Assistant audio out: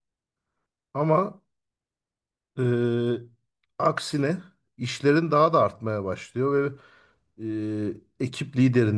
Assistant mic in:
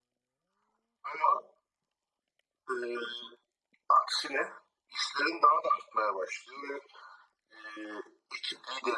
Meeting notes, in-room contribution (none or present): none